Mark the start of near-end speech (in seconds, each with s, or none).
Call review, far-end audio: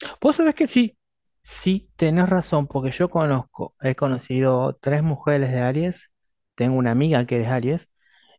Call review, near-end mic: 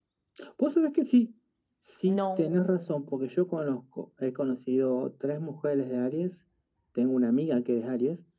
2.0 s